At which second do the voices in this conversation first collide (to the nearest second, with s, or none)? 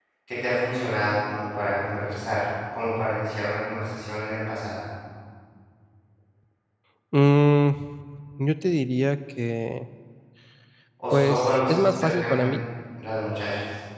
11 s